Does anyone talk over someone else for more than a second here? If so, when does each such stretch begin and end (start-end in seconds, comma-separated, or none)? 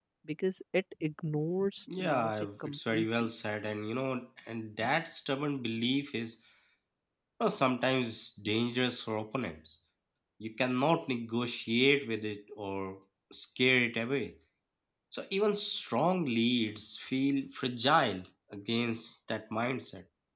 2.0-3.3